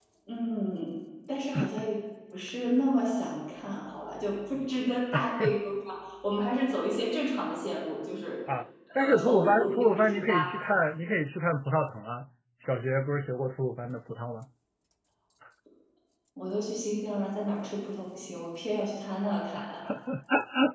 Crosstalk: present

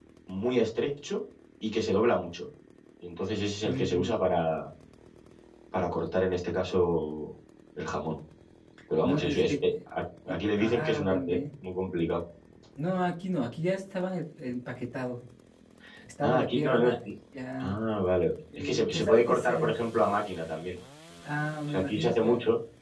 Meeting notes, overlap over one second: present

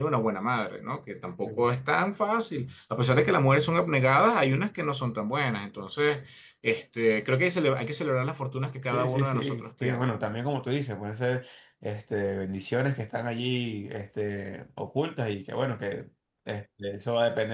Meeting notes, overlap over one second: present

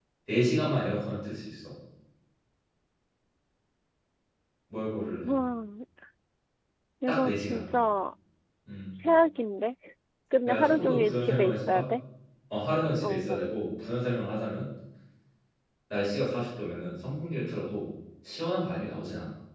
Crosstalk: present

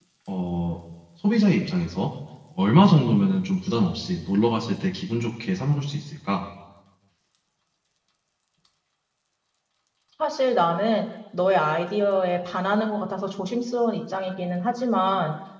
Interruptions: none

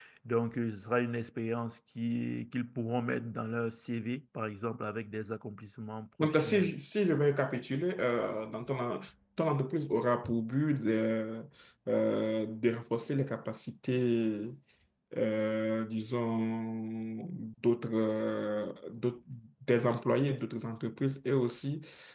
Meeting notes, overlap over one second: none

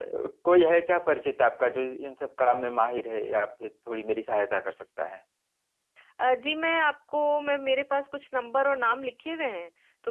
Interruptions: none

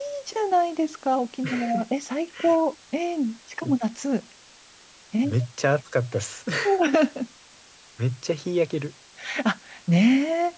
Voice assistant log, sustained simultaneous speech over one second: none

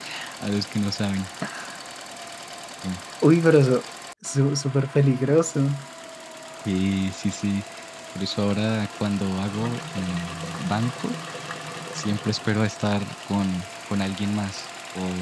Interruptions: none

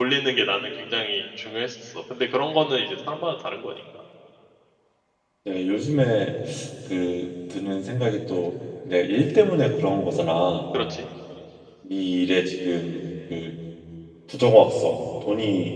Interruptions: none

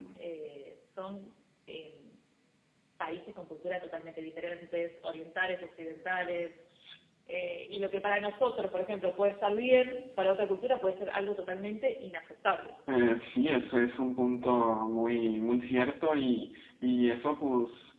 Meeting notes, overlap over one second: none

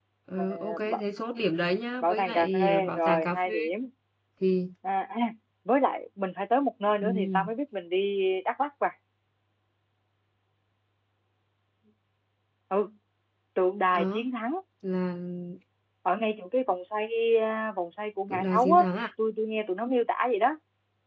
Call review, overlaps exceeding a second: present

